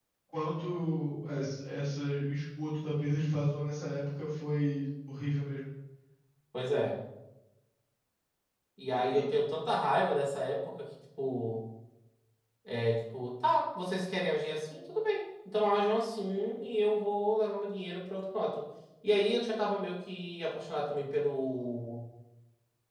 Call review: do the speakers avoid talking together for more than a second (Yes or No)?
Yes